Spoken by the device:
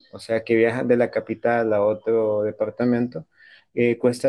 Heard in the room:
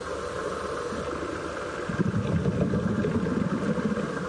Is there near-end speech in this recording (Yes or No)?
No